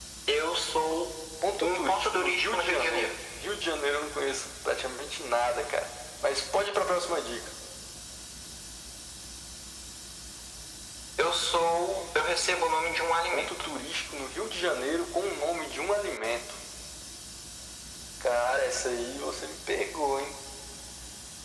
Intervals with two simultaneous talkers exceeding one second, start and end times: 1.6-3.1

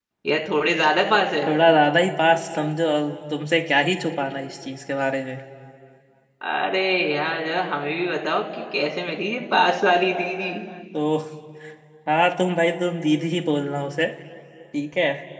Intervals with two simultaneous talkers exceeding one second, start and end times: none

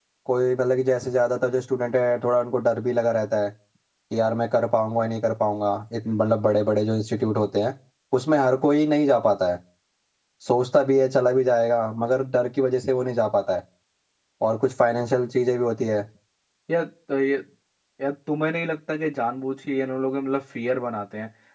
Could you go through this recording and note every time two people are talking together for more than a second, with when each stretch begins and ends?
none

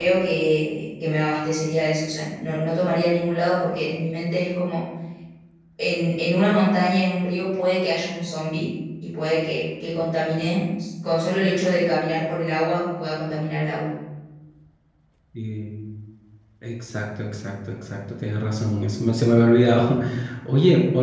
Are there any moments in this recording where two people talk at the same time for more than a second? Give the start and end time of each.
none

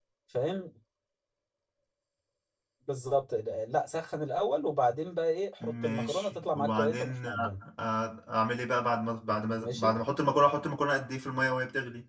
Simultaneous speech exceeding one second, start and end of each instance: 5.6-7.5

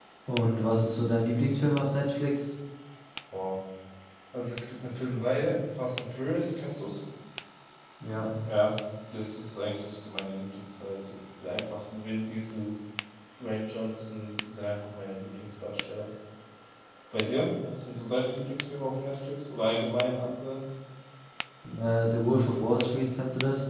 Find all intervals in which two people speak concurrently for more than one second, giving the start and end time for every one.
none

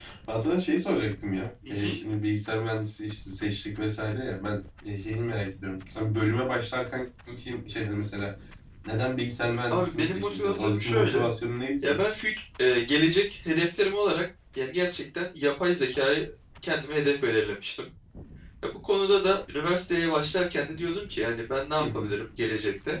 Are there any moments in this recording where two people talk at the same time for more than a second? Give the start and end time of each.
9.7-11.3

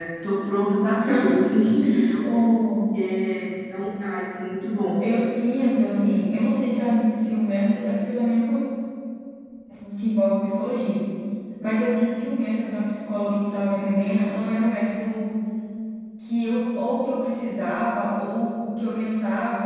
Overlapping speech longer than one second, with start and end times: none

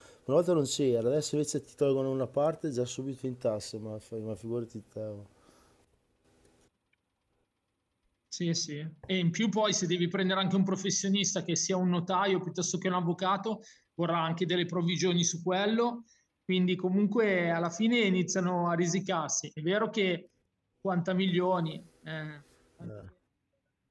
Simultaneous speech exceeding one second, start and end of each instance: none

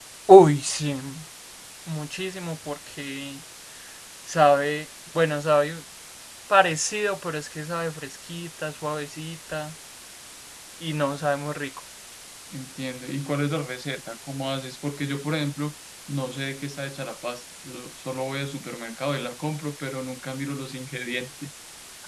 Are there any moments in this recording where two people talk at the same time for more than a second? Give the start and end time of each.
none

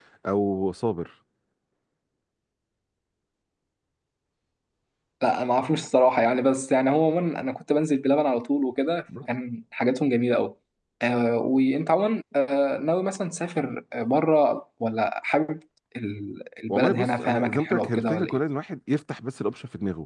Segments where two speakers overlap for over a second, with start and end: 16.7-18.4

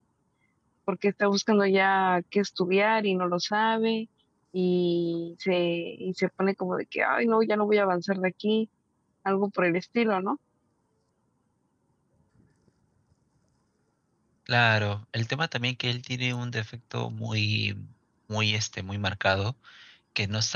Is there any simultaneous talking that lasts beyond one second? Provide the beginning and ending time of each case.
none

